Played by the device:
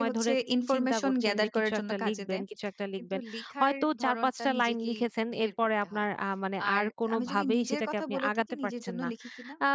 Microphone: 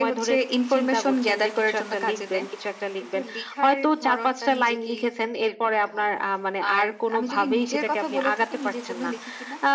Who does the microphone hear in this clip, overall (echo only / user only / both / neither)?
echo only